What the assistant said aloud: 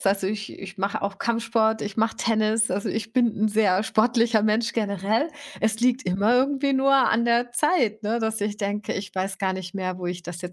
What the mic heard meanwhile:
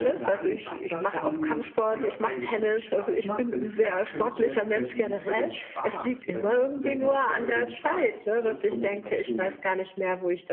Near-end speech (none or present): present